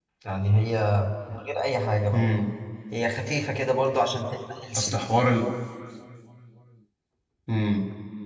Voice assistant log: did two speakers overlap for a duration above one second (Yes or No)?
No